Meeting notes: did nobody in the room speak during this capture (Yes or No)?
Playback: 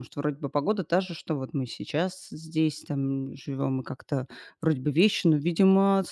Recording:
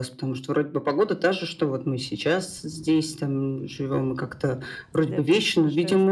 No